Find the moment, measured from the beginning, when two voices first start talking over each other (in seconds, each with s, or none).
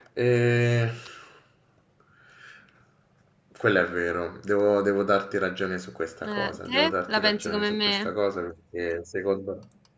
6.2 s